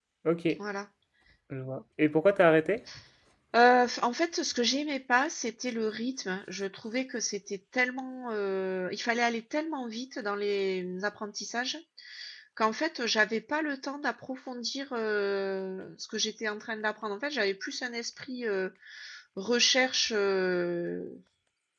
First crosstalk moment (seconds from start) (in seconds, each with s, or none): none